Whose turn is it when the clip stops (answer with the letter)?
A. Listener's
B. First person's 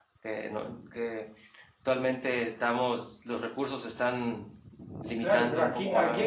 A